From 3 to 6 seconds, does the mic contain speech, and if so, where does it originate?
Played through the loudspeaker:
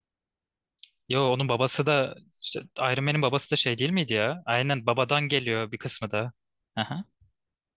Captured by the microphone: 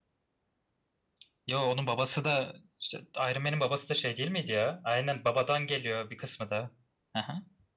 echo only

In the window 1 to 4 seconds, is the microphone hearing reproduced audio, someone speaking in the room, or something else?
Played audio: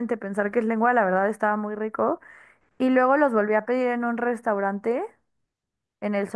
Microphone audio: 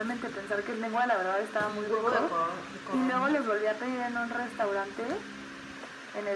both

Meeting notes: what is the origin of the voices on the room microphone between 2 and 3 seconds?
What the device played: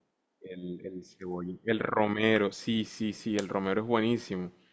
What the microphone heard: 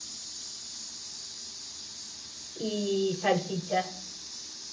user only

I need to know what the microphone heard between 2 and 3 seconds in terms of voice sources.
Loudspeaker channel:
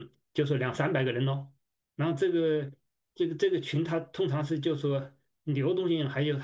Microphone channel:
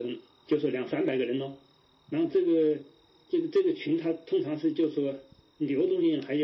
echo only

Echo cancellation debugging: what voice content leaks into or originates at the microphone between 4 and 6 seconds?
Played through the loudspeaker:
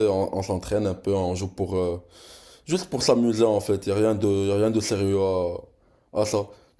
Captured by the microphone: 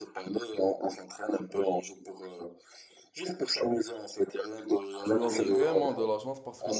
both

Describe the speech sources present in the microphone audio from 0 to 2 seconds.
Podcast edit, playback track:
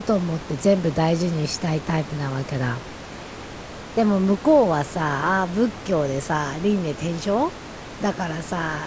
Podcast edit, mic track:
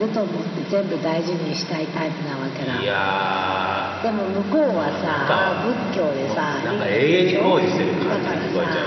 echo only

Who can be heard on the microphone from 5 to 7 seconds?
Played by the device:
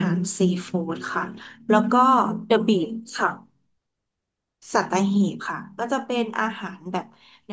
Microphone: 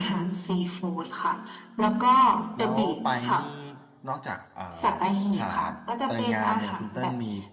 both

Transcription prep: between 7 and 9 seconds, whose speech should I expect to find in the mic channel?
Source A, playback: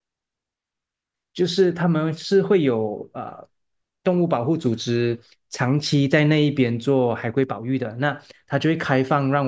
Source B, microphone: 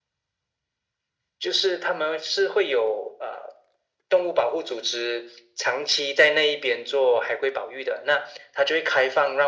echo only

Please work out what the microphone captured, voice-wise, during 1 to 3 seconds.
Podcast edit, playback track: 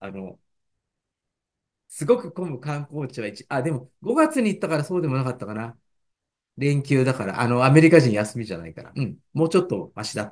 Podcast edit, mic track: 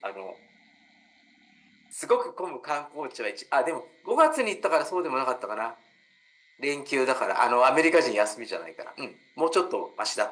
echo only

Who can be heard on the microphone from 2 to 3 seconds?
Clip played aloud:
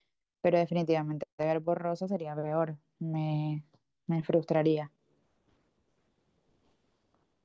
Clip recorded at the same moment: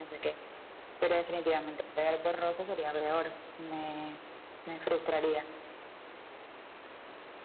echo only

